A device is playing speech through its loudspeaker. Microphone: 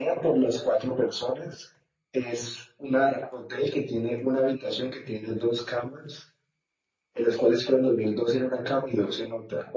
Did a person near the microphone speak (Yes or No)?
No